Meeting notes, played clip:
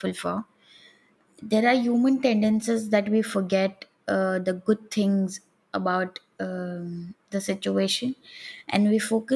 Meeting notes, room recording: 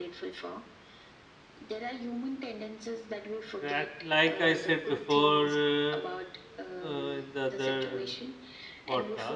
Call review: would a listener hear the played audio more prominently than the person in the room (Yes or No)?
No